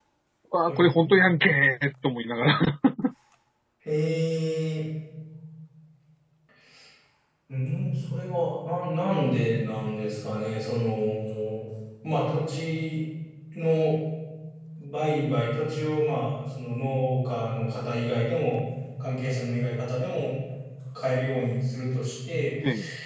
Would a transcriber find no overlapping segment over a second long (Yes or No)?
Yes